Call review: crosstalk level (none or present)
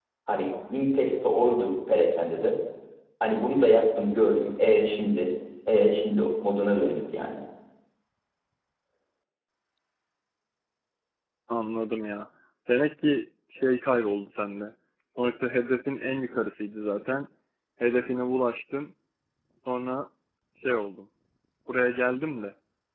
none